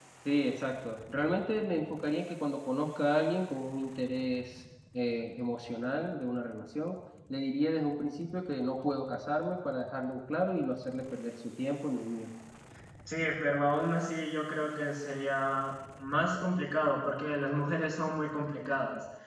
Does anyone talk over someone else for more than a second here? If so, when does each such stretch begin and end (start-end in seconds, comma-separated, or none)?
none